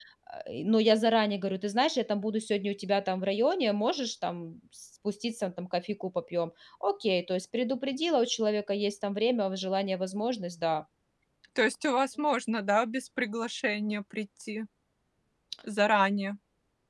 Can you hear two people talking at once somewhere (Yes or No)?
No